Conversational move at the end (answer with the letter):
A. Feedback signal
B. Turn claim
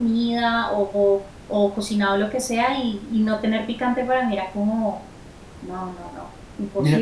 B